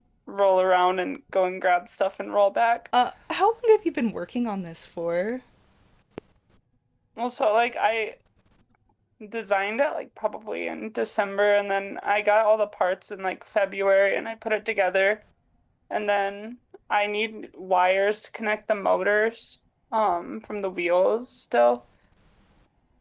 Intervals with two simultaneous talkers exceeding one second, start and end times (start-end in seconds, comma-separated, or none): none